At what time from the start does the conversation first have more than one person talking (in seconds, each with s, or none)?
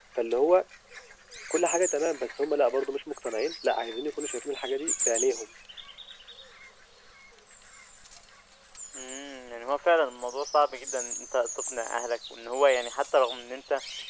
none